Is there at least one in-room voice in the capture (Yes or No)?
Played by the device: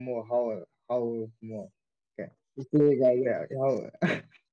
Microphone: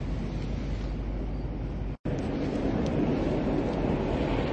No